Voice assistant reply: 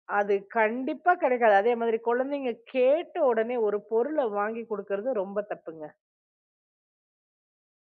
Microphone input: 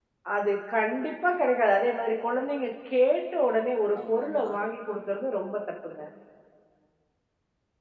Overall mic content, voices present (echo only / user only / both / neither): both